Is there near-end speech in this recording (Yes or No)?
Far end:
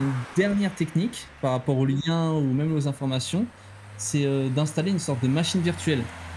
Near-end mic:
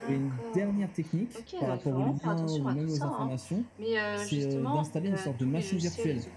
Yes